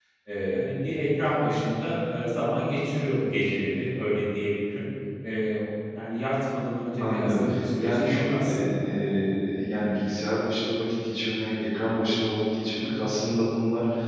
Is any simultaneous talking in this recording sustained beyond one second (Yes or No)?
Yes